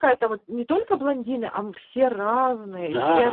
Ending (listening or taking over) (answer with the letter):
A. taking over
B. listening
A